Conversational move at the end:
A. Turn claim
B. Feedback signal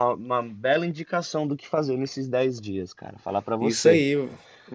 A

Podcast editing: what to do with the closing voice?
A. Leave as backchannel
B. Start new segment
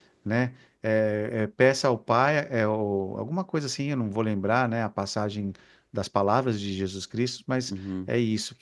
A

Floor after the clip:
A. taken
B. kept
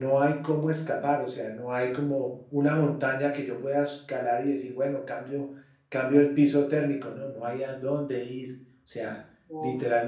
B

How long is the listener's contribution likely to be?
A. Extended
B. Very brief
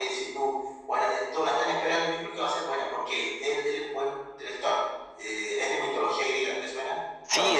A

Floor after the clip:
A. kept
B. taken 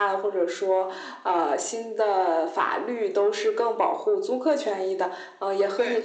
A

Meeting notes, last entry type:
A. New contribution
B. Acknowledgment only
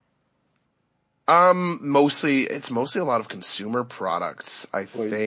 B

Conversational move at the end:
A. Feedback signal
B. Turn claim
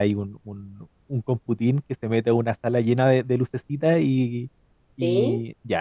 A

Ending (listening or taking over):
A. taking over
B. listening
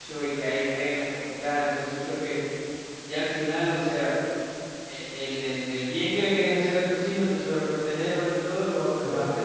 B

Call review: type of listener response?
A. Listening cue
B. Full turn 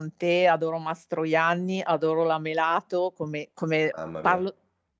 A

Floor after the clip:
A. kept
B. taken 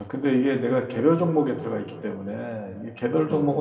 A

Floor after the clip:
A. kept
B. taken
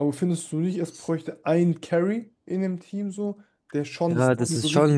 B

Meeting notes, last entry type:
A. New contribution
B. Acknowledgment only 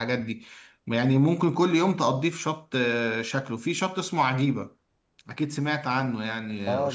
A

